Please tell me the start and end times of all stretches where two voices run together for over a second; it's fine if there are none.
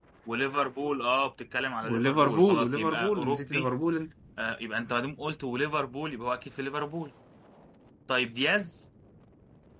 1.8-3.7

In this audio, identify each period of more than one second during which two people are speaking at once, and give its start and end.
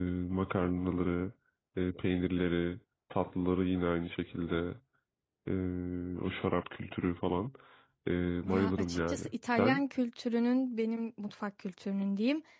8.4-9.8

